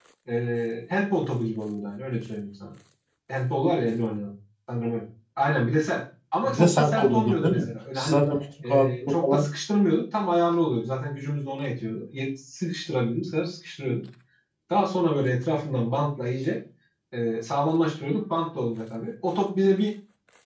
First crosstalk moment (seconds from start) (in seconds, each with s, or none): 6.5 s